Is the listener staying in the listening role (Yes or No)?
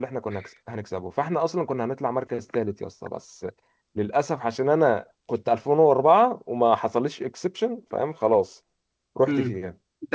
No